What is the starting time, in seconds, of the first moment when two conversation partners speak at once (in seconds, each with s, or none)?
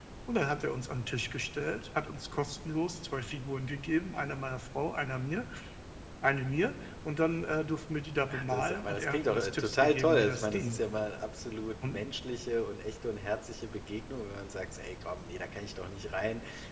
8.3 s